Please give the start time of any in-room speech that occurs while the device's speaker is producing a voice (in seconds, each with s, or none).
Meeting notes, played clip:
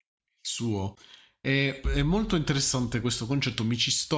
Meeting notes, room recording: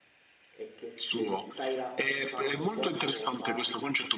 0.5 s